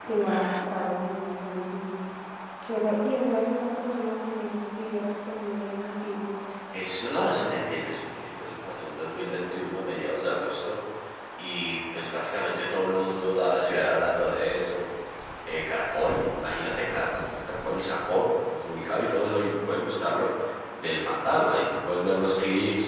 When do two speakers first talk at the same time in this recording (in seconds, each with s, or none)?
none